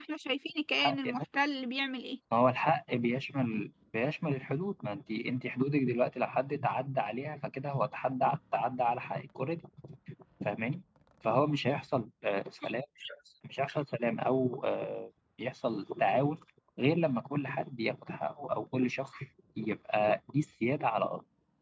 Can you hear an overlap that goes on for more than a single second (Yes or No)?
No